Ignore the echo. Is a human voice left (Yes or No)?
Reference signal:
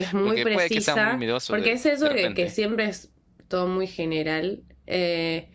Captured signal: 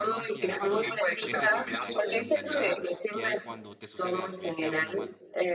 Yes